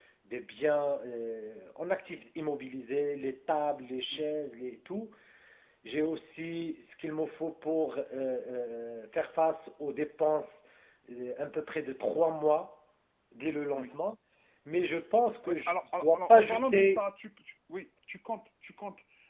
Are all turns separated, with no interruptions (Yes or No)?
No